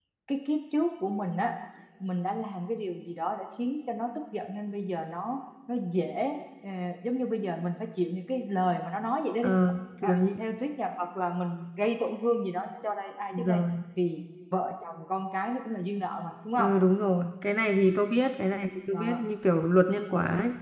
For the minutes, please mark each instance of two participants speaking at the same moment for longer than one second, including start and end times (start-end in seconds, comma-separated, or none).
none